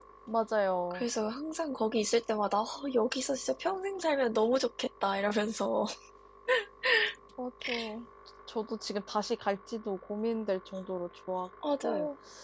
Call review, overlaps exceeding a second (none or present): none